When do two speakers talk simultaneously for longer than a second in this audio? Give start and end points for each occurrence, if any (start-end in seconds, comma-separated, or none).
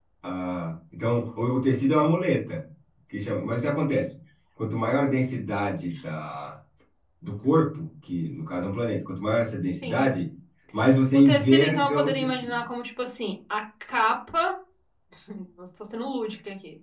11.1-12.6